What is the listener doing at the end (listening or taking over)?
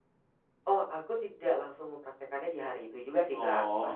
listening